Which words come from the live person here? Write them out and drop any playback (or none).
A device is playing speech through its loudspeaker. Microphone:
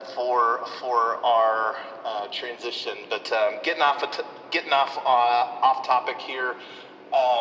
none